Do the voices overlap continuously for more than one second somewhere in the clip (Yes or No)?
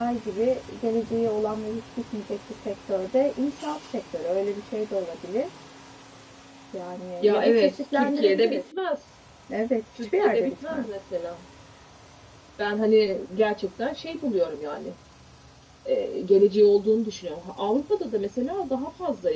Yes